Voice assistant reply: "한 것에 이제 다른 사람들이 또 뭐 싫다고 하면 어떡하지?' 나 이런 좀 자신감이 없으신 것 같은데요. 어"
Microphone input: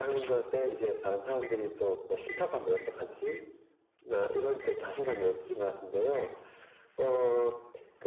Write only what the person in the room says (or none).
none